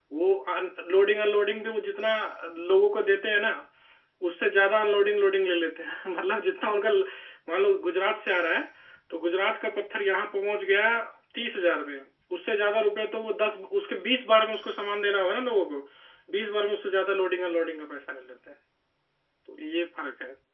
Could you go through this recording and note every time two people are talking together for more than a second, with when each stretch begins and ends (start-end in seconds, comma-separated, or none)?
none